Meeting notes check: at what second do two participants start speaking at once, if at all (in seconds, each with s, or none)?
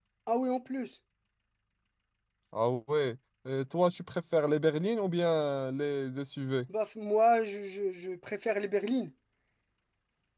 none